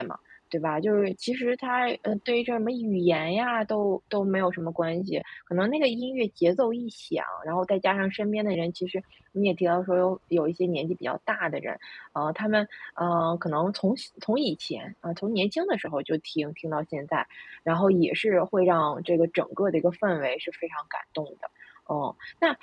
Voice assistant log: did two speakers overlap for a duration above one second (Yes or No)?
No